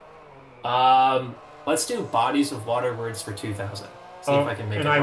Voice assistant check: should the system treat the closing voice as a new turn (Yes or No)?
Yes